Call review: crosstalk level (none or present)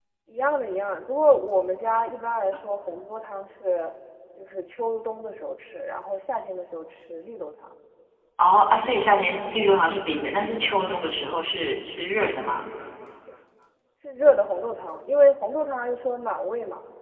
none